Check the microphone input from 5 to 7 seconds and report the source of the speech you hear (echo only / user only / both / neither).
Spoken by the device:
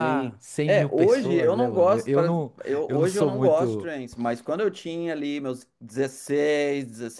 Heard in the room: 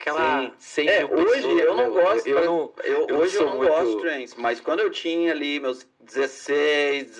echo only